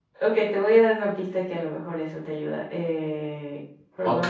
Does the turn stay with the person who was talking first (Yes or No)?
No